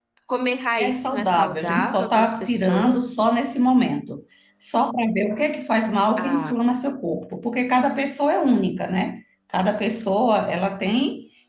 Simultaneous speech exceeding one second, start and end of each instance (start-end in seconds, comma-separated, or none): 0.8-3.1